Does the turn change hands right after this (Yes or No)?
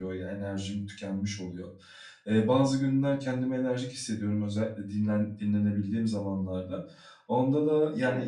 No